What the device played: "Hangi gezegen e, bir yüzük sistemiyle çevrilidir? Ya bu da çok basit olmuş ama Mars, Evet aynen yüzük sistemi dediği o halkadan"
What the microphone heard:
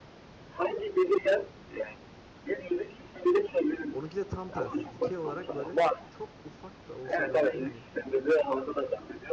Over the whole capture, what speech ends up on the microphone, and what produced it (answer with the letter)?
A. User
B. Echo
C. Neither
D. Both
D